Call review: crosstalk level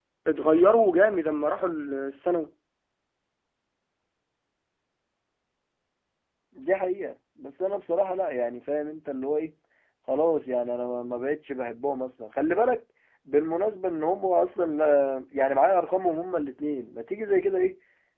none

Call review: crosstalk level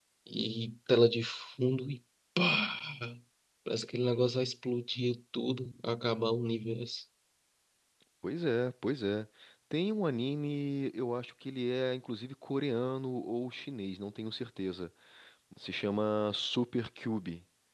none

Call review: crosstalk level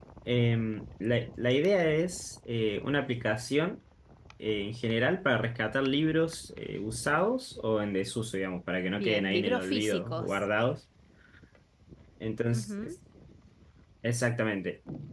present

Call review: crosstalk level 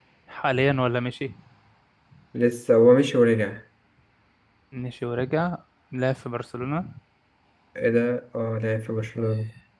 none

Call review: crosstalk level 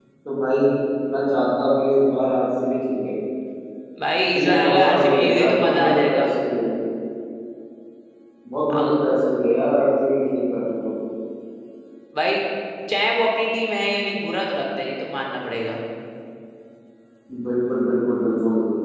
present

